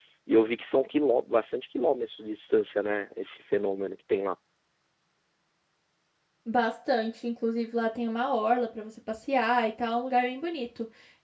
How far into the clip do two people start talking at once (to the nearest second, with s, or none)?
none